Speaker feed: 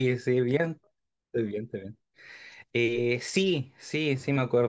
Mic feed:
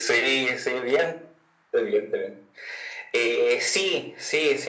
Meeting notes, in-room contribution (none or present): none